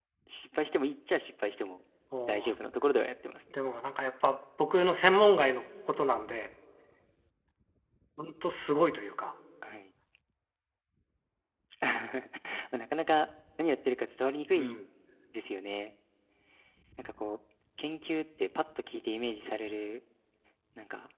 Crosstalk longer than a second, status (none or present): none